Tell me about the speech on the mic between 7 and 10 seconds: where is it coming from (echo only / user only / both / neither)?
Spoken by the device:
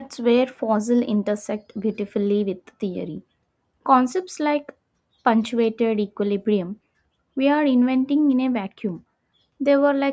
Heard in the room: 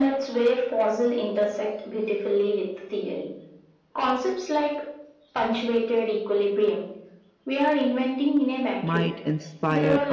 both